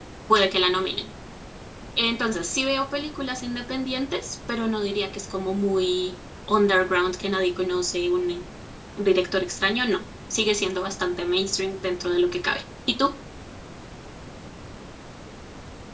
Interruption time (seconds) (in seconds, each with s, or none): none